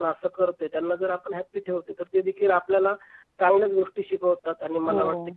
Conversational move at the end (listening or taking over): listening